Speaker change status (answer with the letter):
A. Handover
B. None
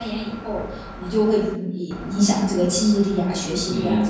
A